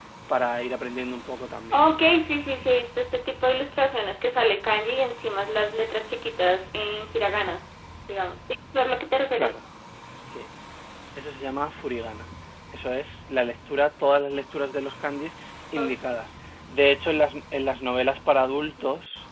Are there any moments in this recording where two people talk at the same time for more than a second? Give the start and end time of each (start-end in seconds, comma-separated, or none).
none